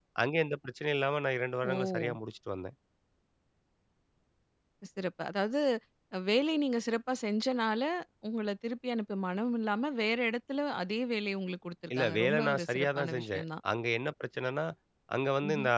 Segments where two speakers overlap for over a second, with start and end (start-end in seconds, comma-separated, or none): 11.9-13.4